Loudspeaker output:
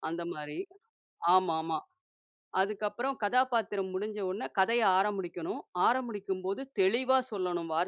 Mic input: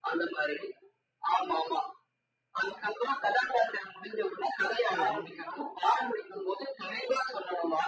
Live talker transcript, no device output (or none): சரி.